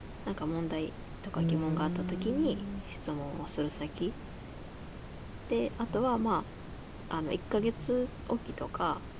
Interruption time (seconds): 1 s

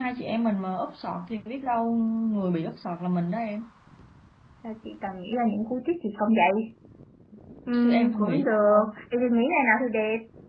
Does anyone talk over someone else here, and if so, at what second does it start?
8 s

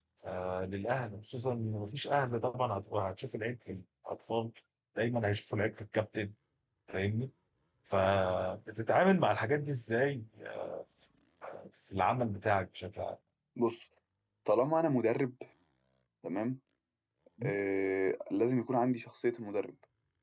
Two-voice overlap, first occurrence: none

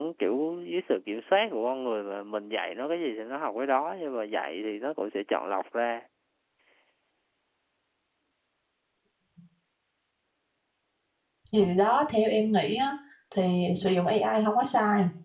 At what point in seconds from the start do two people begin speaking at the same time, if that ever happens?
none

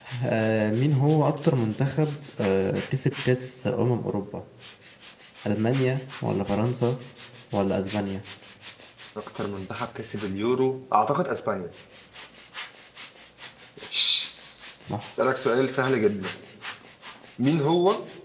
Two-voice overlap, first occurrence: none

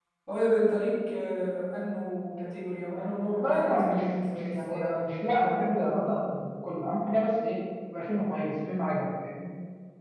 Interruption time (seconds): 3 s

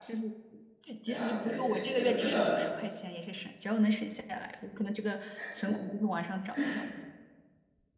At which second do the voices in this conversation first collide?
1 s

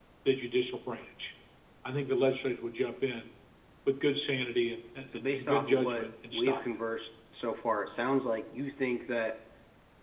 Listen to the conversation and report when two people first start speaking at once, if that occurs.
5 s

